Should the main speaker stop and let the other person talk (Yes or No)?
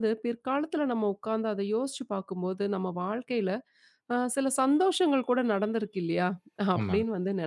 No